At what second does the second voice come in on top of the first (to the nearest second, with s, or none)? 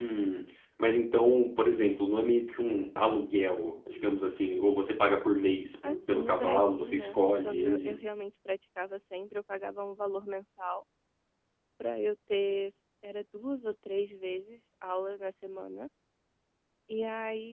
6 s